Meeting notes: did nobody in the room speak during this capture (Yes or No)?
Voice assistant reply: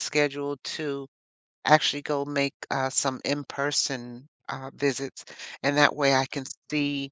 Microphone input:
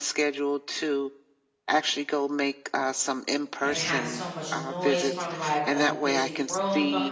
No